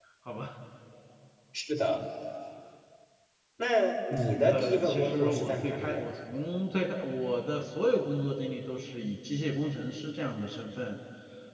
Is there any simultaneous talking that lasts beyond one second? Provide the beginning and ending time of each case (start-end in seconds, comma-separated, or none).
4.5-6.1